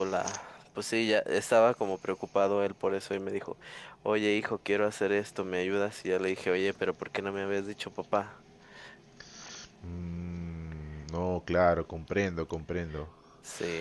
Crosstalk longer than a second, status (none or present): none